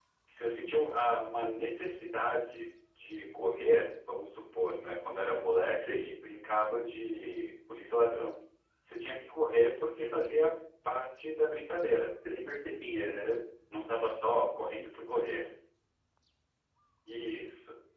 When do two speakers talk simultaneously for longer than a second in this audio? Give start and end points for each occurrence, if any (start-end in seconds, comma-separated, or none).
none